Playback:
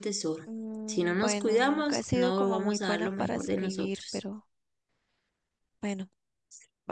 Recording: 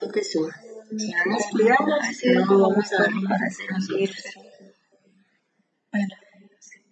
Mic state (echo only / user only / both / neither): echo only